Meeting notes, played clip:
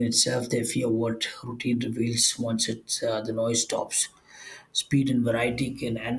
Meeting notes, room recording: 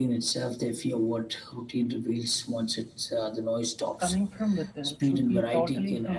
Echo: present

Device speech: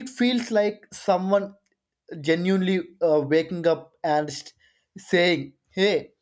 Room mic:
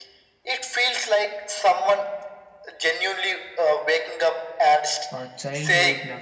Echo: present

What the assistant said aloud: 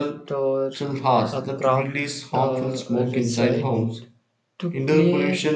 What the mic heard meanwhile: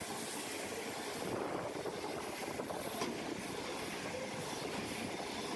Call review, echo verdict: none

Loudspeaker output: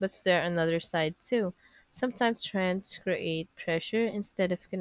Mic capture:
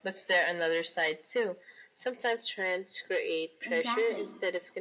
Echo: present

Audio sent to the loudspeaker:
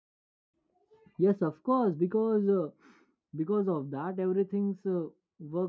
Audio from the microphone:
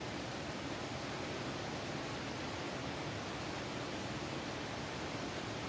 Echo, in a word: none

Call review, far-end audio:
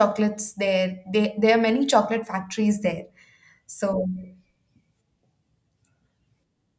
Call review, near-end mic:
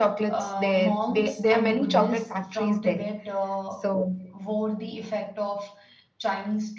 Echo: present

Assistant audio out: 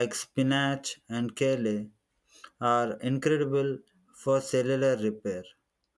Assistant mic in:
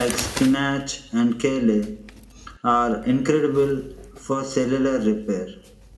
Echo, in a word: present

